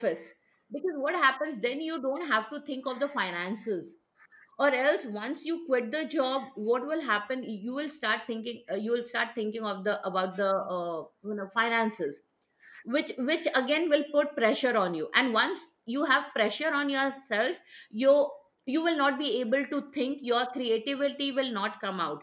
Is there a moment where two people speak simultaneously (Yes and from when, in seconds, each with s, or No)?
No